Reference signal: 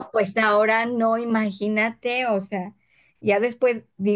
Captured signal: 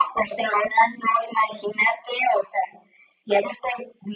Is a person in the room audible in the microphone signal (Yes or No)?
No